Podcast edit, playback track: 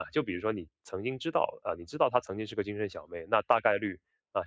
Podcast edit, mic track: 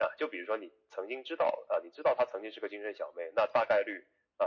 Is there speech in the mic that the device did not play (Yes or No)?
No